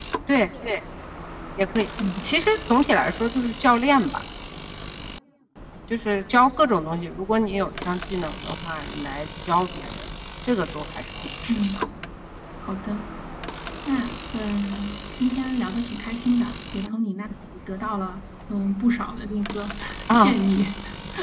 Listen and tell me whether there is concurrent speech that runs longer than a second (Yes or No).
No